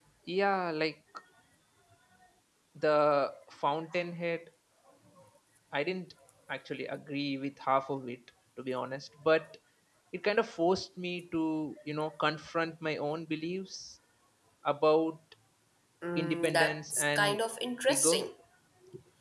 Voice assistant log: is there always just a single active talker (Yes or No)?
No